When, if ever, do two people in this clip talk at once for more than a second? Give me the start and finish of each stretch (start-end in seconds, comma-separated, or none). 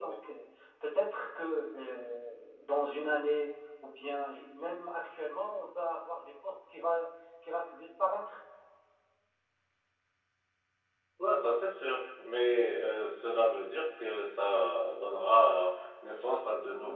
none